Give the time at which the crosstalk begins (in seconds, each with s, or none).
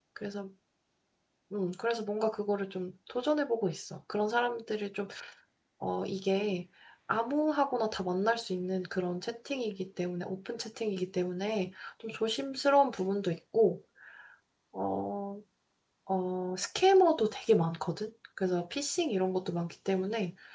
none